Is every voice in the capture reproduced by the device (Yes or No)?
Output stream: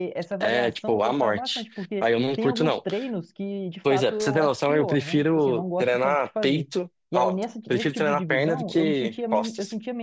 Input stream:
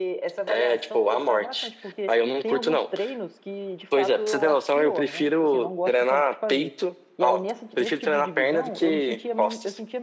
Yes